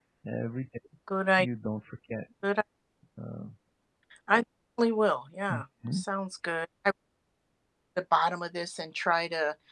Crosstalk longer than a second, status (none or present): none